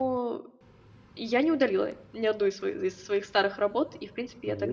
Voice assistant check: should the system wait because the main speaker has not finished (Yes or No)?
Yes